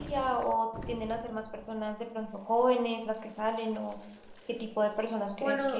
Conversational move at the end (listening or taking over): listening